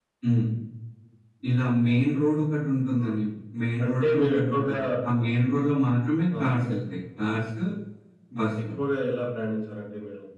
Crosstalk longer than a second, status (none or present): present